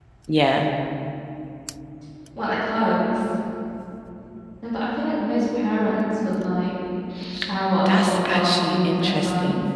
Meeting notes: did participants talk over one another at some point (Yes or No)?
Yes